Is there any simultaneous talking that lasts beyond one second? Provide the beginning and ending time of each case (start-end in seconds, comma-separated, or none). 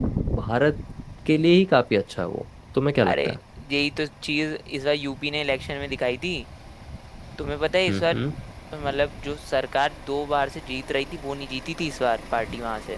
none